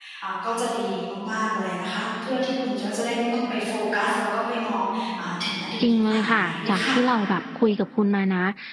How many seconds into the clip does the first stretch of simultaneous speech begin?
5.8 s

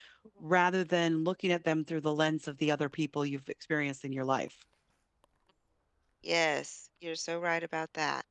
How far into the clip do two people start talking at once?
none

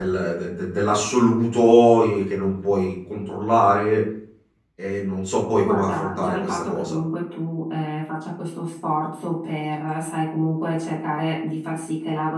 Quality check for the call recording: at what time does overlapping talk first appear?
5.6 s

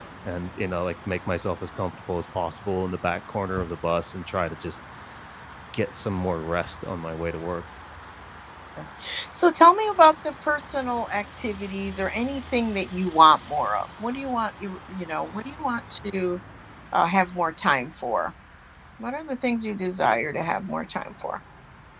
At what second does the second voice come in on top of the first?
none

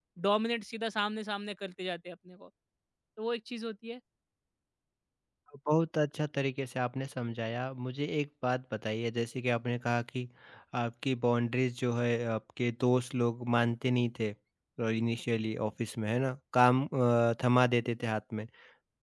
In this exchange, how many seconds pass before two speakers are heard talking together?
none

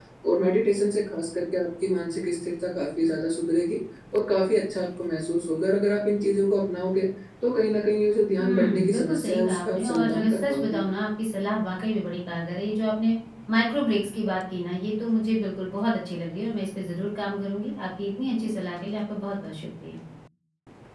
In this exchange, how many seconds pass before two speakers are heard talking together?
8.4 s

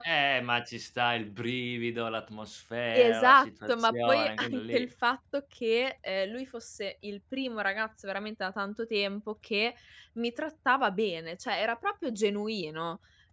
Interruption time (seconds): 2.9 s

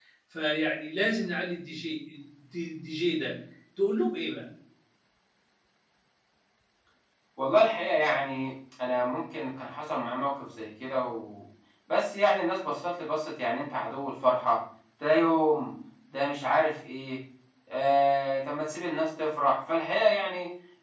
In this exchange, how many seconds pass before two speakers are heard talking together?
none

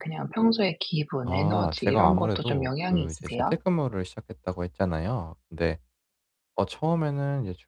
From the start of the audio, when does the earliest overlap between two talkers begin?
1.3 s

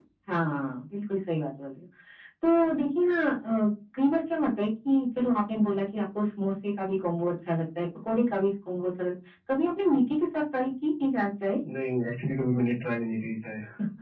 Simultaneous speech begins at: none

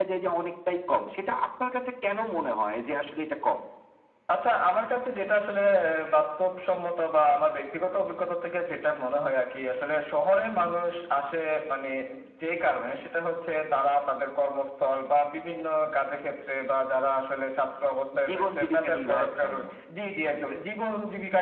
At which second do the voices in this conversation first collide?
18.1 s

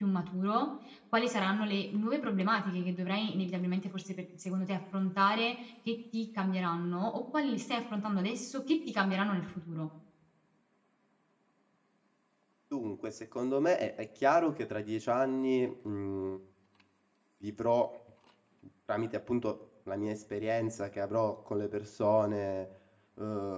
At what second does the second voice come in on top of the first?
none

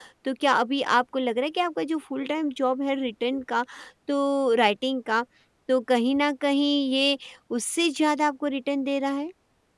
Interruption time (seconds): none

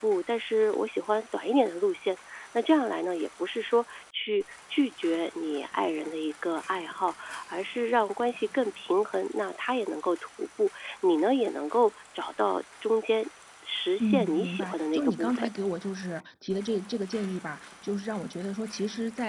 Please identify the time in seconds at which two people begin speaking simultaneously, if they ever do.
14.0 s

